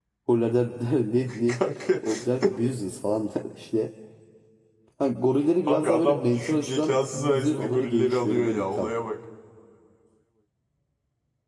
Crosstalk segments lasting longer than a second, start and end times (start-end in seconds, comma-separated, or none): 5.7-8.9